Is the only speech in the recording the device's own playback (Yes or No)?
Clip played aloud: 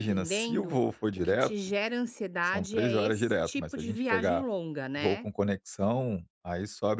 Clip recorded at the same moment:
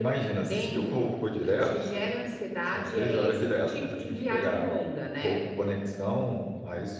Yes